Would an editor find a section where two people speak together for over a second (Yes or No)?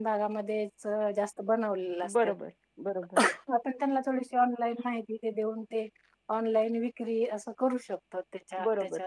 No